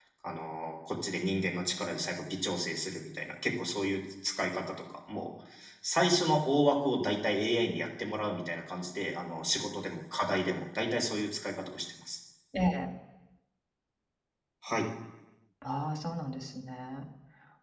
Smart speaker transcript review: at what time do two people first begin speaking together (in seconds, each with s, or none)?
none